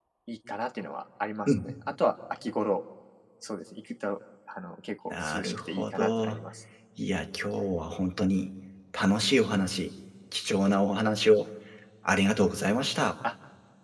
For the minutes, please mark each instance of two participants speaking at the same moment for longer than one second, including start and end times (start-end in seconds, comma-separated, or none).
5.1-6.4